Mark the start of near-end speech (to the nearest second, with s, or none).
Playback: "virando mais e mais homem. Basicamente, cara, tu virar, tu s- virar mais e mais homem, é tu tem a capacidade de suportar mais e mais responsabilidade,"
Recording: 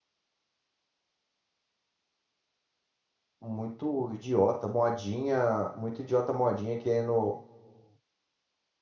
3 s